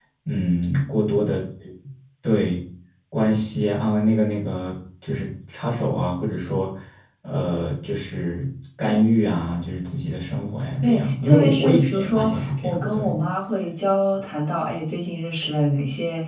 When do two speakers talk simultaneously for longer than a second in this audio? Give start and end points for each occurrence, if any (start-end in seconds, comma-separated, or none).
10.8-13.2